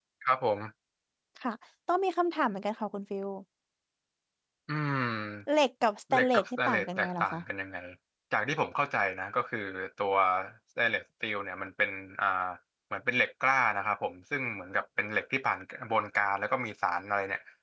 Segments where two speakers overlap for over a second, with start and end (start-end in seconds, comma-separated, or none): 6.1-7.4